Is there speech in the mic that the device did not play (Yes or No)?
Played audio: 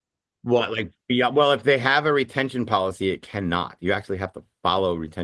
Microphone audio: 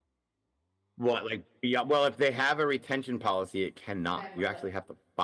Yes